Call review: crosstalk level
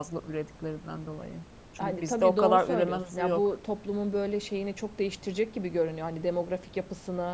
present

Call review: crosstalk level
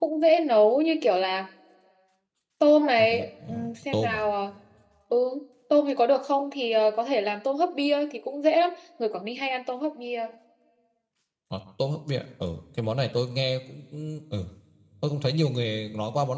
present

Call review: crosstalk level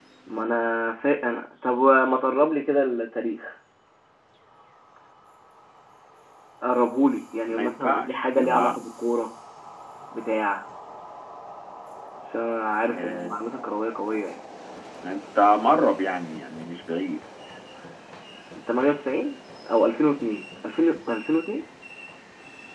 present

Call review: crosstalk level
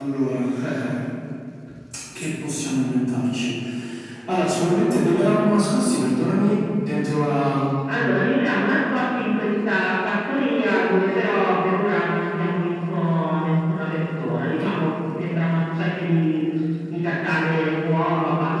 none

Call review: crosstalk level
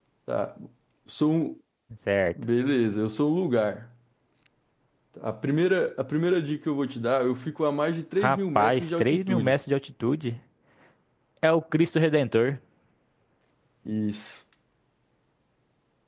present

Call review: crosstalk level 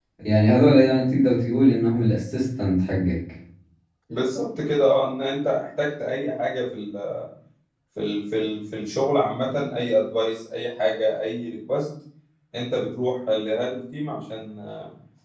none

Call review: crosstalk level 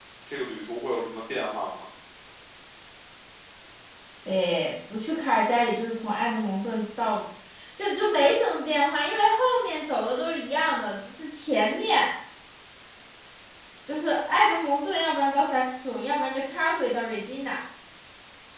none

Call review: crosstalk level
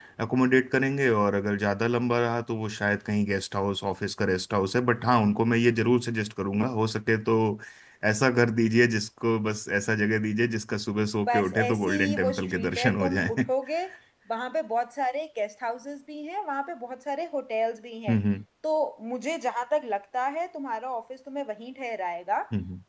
present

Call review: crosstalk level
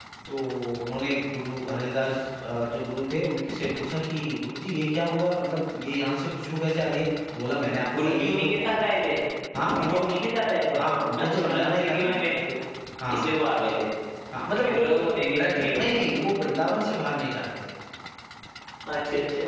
present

